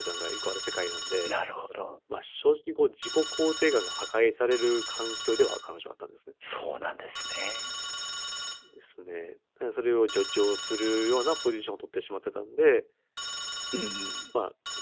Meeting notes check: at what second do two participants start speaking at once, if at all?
none

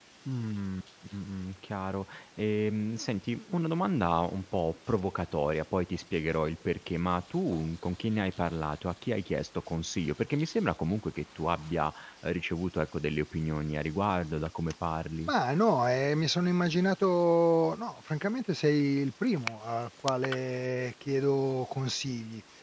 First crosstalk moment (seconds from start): none

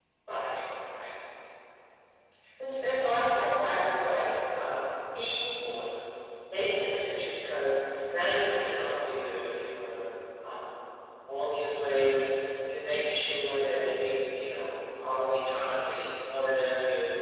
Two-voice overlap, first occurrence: none

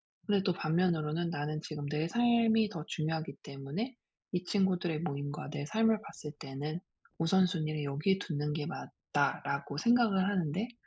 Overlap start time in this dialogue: none

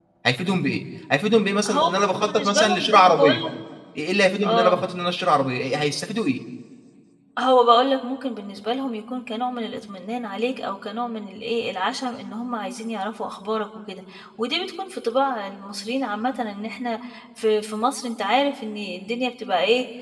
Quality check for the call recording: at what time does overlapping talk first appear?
1.7 s

